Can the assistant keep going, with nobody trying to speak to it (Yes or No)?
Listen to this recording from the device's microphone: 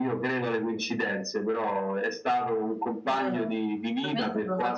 No